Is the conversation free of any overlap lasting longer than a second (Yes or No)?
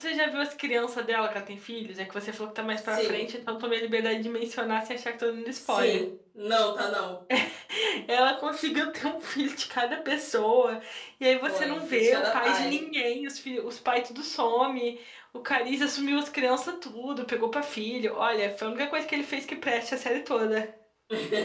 No